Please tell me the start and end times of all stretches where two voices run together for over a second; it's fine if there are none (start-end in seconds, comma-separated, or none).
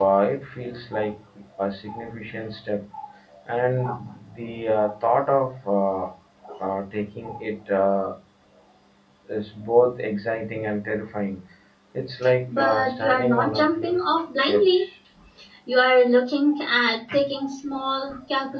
12.6-14.0